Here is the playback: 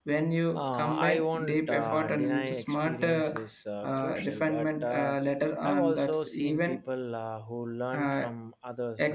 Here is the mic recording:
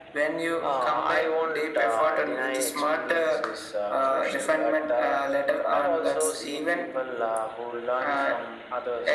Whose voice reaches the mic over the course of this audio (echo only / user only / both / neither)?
echo only